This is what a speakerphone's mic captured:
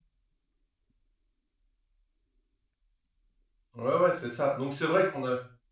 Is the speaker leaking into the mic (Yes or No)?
No